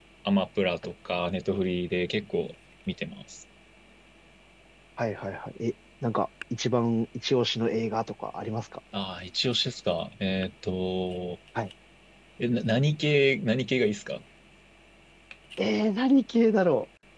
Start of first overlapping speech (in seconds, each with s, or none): none